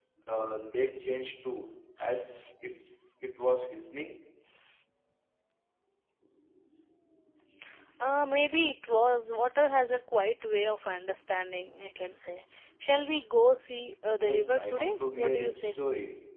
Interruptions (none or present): present